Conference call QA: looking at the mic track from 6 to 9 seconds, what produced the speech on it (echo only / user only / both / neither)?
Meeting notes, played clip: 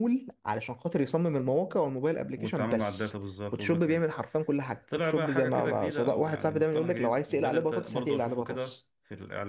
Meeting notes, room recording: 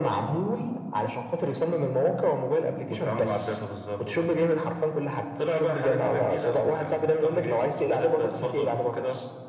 echo only